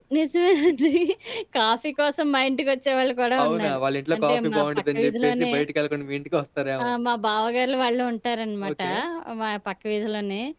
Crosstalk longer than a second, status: present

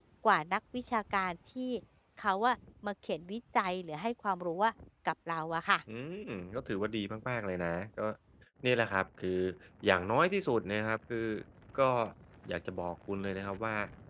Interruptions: none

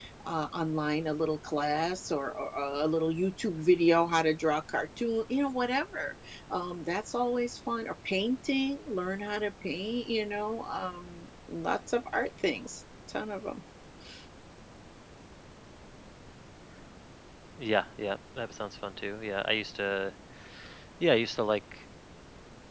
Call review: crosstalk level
none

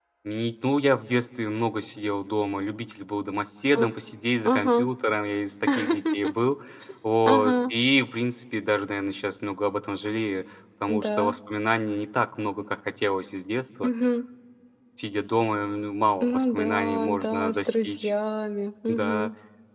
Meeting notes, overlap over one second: present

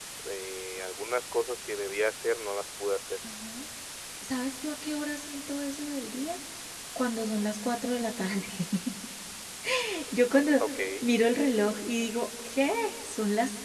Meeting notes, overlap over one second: none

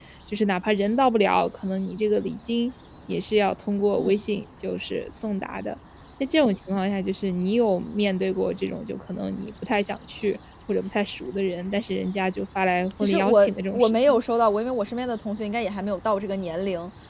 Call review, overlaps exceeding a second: present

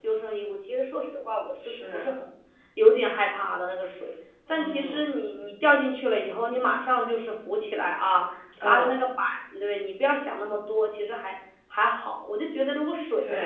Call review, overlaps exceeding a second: none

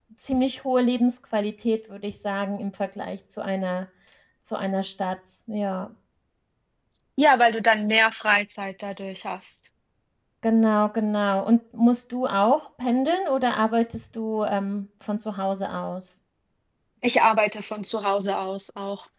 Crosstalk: none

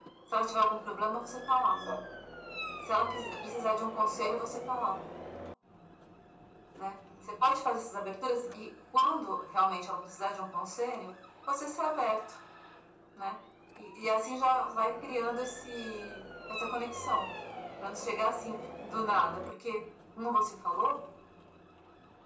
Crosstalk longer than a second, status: none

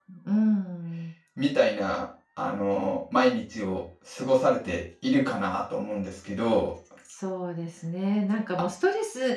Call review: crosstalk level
none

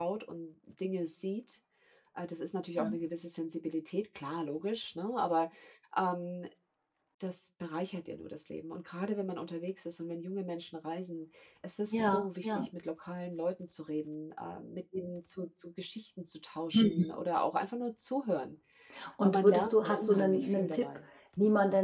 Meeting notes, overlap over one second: present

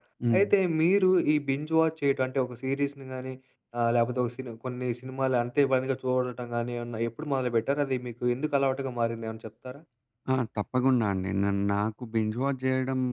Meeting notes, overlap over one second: none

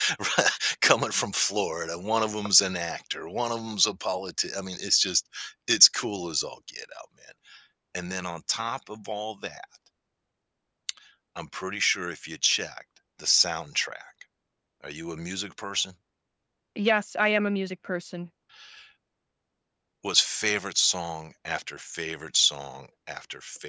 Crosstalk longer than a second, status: none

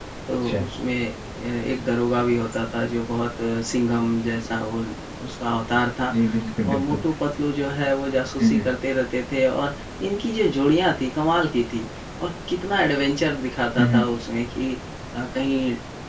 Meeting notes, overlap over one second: none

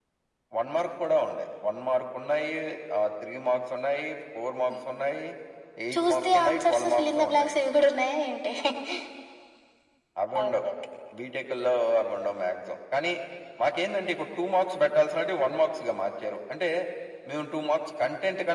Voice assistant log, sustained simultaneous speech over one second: present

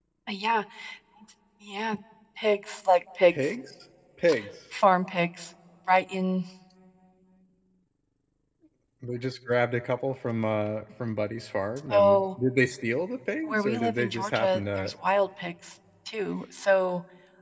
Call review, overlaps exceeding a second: present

